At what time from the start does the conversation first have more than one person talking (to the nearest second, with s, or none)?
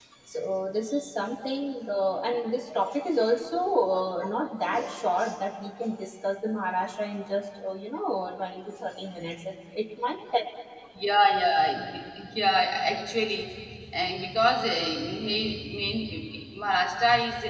none